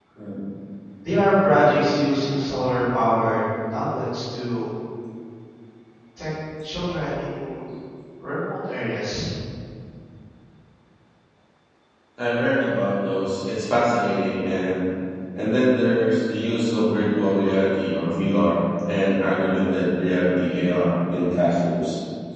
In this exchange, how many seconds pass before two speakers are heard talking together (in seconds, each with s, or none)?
none